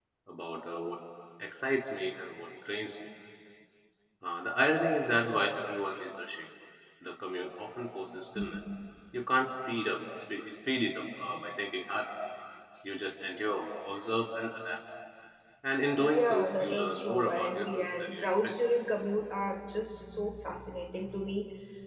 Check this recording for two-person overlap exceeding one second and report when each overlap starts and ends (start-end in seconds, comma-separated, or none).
16.0-18.5